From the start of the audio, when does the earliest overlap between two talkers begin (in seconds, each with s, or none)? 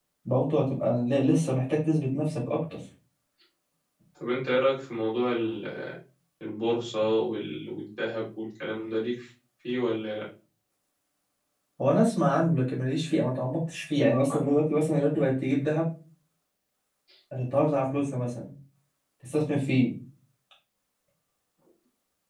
none